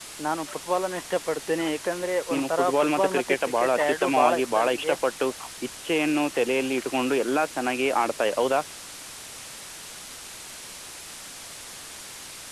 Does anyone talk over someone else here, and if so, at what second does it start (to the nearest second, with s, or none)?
2 s